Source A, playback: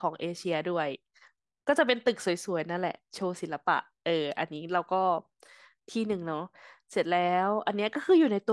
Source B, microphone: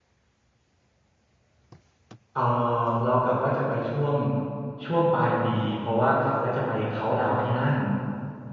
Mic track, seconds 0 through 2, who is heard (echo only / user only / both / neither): neither